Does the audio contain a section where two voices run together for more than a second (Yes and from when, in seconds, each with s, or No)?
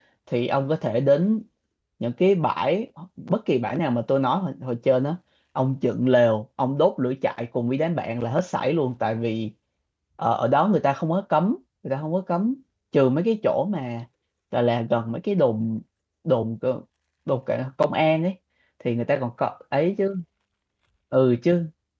No